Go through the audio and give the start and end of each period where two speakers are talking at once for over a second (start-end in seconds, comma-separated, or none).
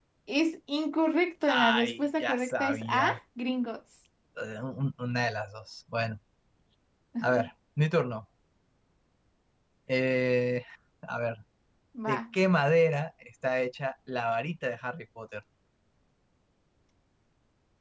1.5-3.2